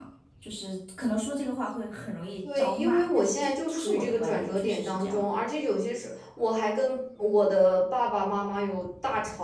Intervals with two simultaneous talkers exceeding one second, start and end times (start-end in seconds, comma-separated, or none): 2.5-5.4